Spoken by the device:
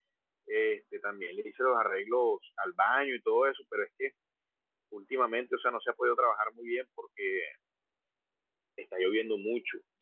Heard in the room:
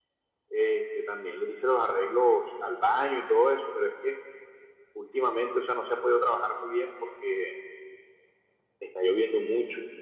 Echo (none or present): present